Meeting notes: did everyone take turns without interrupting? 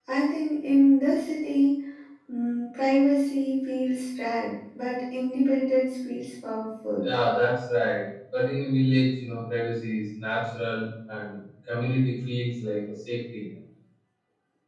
Yes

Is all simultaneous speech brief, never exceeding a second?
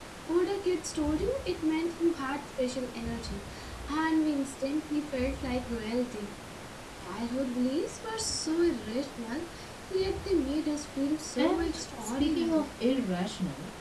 No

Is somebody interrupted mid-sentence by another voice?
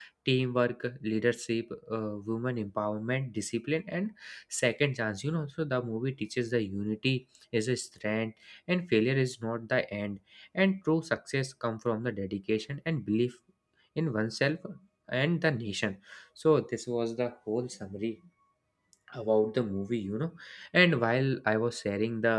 No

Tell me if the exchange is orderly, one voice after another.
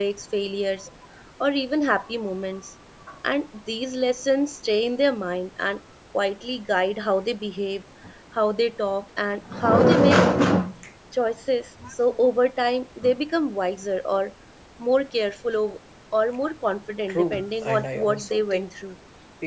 No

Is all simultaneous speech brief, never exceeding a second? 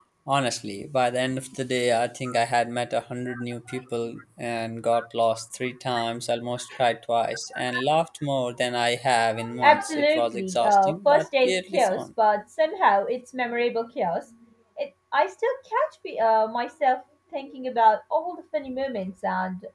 No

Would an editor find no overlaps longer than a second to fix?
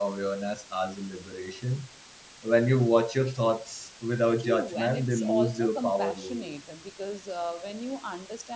No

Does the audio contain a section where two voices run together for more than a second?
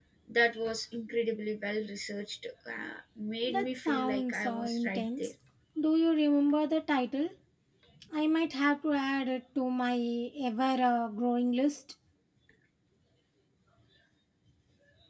Yes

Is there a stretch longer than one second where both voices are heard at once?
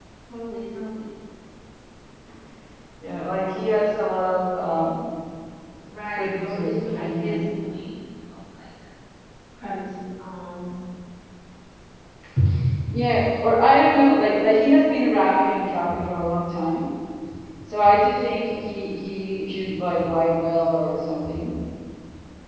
Yes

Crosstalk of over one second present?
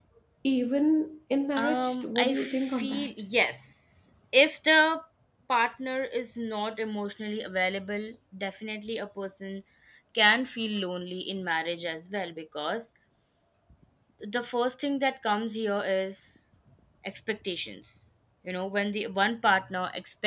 Yes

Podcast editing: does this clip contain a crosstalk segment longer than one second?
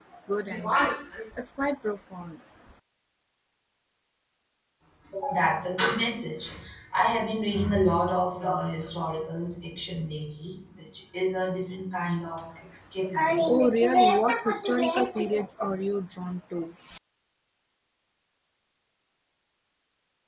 No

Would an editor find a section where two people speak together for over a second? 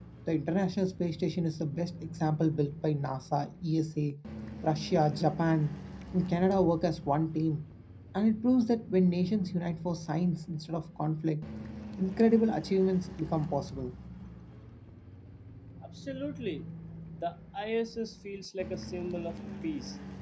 No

